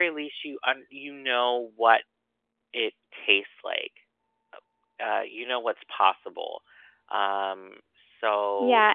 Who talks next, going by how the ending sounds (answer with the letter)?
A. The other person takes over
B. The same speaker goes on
A